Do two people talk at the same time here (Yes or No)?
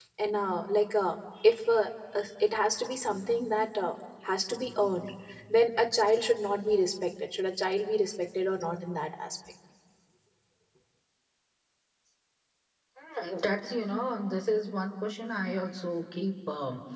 No